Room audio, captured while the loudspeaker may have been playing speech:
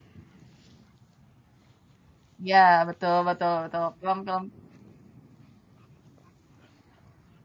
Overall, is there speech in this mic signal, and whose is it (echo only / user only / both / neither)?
user only